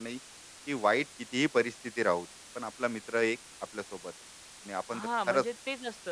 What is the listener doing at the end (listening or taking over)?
taking over